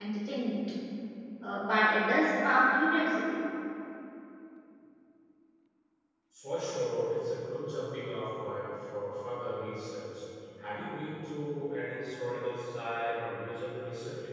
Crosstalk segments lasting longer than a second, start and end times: none

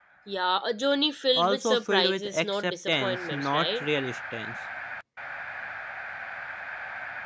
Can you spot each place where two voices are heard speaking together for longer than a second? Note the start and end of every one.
1.4-3.8

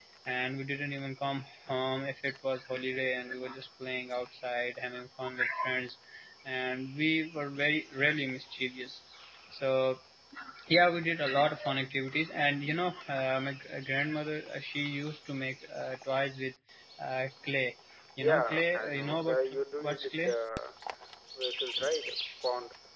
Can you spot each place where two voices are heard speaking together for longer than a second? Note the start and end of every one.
18.2-20.3

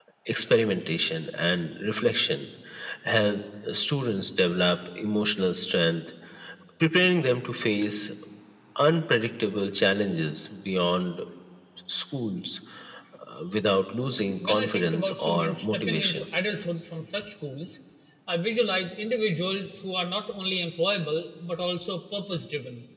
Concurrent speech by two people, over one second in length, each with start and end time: 14.4-16.2

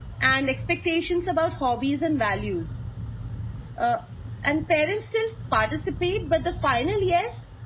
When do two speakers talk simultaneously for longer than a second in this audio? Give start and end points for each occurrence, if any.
none

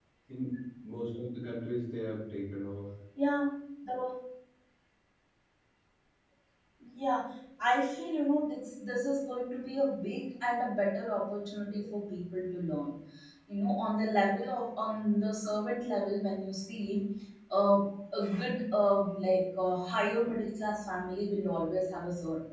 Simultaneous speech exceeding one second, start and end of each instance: none

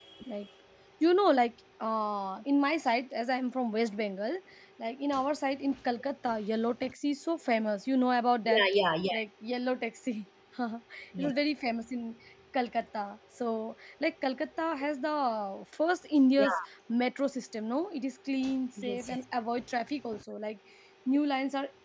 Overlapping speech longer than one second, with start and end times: none

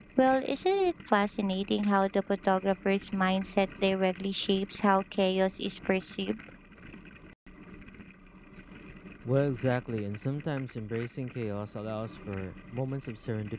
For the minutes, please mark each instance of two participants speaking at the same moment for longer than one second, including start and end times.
none

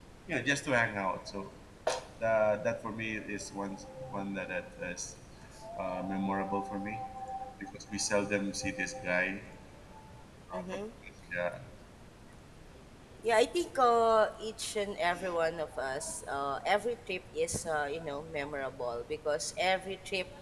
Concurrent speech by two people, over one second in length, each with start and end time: none

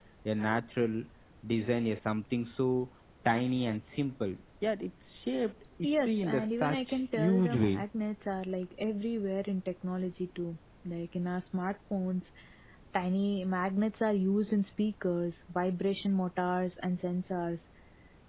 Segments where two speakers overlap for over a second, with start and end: 5.8-7.8

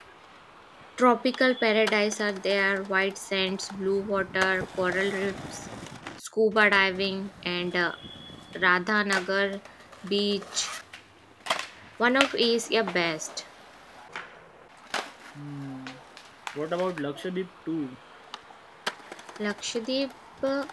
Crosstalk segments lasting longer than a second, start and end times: none

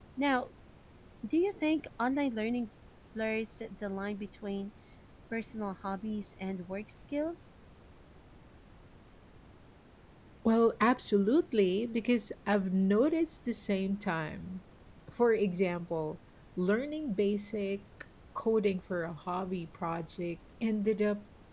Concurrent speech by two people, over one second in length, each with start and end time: none

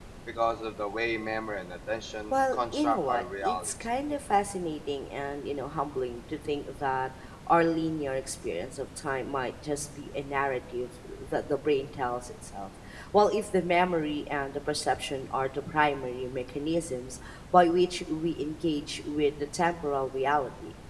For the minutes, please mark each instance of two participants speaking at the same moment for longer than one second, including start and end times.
2.3-3.7

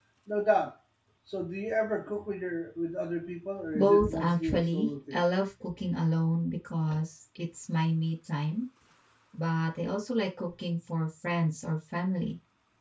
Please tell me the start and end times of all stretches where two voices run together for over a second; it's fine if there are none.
3.7-5.2

